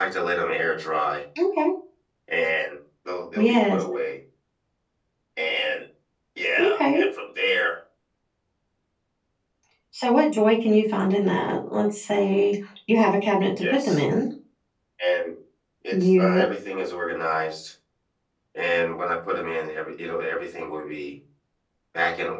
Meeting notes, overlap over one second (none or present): none